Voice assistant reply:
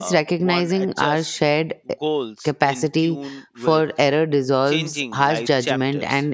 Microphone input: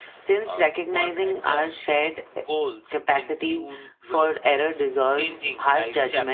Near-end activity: none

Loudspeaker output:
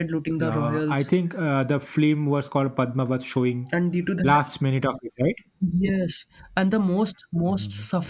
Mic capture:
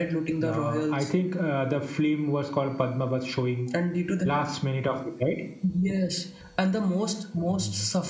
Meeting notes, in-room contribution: none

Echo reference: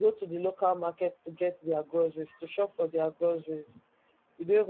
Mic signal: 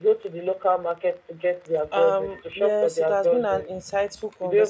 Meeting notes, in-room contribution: present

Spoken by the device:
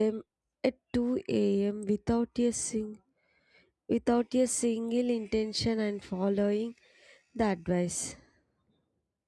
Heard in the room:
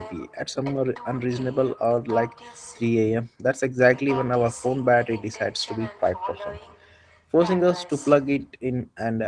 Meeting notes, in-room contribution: present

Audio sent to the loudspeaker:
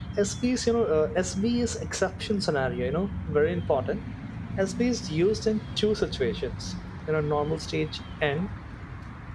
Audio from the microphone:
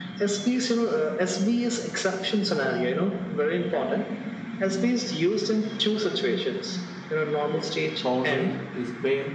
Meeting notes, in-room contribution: present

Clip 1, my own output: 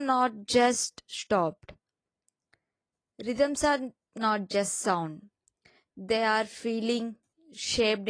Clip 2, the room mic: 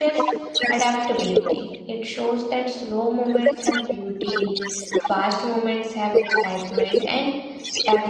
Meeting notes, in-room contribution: present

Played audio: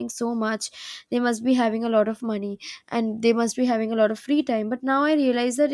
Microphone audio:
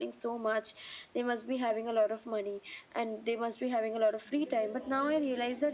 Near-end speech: present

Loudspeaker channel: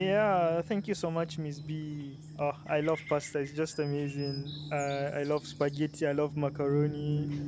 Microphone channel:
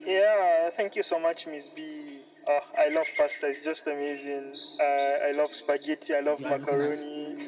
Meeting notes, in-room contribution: present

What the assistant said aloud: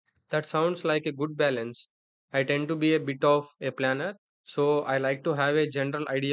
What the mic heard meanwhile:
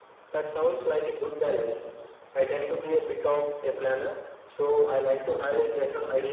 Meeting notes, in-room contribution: none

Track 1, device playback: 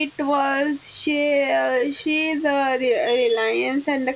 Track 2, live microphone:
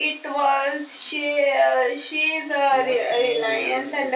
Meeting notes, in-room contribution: present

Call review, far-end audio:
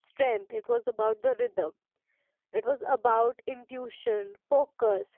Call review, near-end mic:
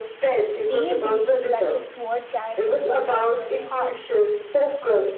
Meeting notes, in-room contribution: present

